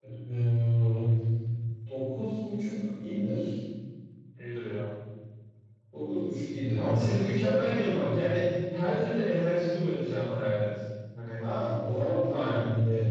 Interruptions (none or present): present